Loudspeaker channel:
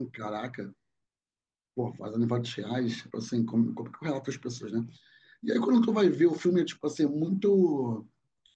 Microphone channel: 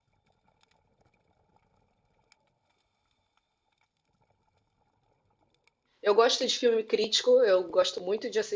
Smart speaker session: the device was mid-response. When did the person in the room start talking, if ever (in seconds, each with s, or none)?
6.0 s